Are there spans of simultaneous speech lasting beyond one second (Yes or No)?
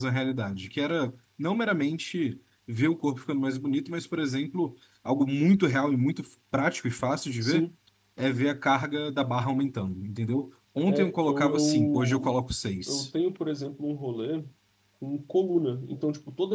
Yes